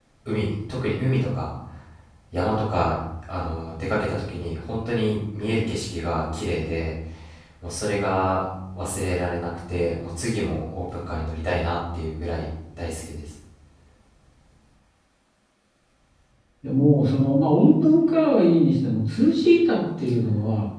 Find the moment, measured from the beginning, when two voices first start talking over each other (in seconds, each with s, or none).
none